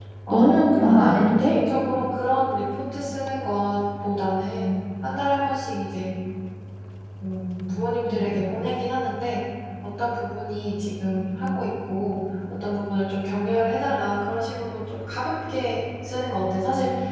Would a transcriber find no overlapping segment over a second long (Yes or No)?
No